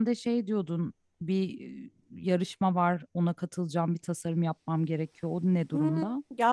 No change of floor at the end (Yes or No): No